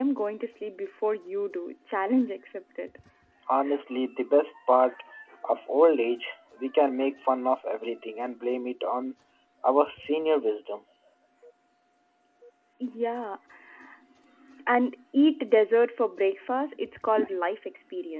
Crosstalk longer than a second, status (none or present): none